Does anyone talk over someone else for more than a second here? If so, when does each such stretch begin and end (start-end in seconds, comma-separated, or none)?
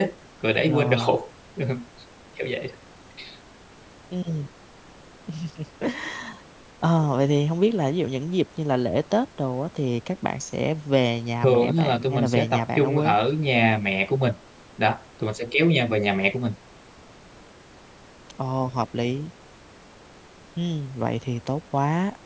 11.4-13.1